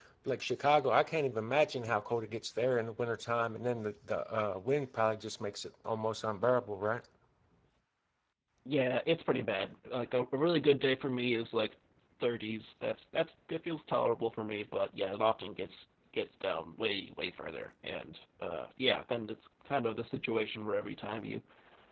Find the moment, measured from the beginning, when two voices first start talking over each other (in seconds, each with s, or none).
none